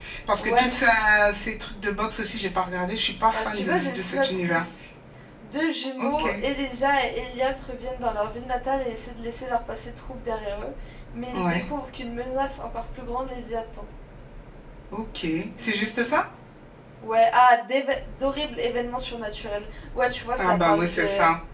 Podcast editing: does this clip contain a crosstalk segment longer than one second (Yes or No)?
Yes